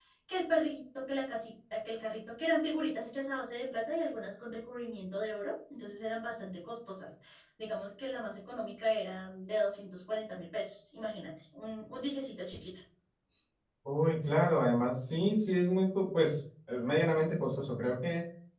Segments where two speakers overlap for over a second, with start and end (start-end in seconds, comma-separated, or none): none